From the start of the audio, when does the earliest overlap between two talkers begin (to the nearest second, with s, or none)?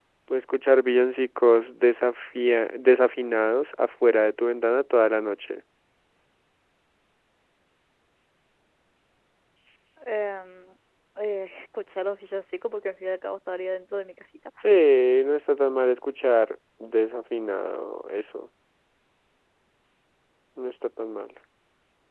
none